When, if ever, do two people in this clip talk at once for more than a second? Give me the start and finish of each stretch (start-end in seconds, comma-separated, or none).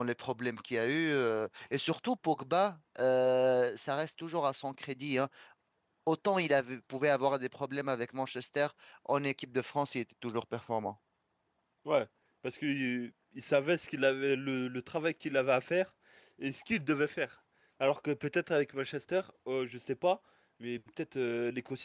none